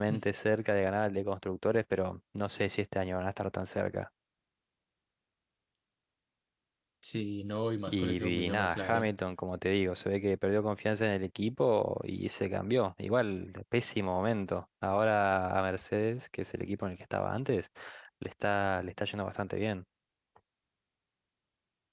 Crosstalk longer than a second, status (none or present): present